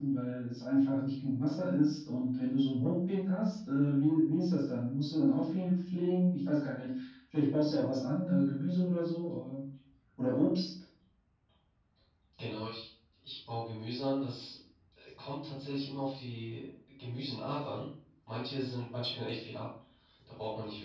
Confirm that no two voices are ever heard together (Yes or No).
Yes